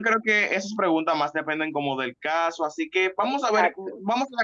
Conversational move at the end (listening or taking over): listening